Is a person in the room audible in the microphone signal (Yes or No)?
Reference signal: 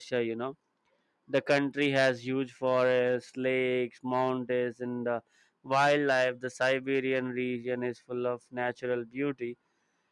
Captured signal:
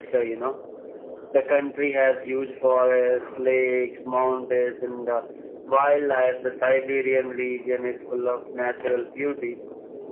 No